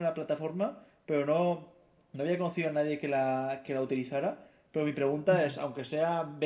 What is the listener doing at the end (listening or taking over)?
listening